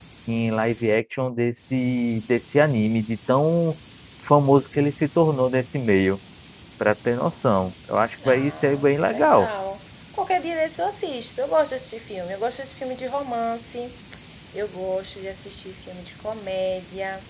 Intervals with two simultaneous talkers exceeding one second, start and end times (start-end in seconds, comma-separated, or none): 8.2-9.5